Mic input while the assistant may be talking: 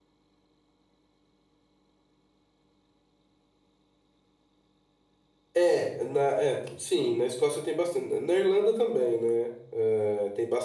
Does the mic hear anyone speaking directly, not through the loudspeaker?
Yes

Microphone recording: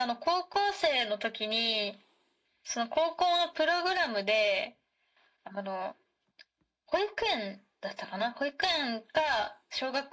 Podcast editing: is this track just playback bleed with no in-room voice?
Yes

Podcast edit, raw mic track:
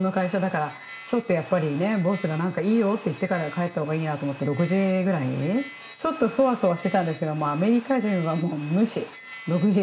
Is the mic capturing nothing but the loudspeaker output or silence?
Yes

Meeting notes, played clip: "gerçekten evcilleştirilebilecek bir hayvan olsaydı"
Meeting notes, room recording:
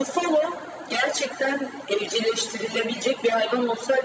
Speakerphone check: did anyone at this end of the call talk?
No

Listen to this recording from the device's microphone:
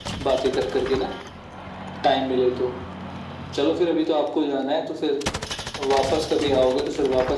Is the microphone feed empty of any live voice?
Yes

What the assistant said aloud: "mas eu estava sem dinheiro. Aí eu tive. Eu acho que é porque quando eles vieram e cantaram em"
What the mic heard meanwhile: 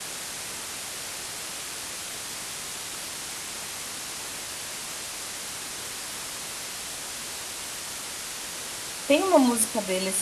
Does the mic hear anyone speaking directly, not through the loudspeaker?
Yes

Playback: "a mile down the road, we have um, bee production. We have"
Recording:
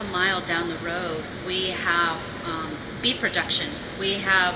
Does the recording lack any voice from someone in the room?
Yes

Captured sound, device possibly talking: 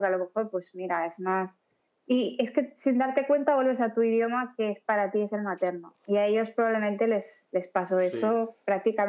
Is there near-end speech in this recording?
Yes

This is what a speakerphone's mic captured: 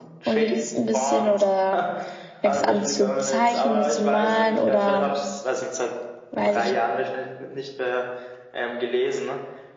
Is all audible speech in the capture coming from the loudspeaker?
No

